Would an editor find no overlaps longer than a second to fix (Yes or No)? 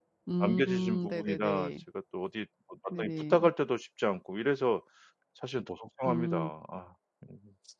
No